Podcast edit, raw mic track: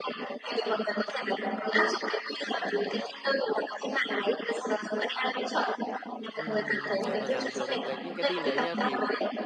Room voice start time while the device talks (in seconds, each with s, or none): 6.3 s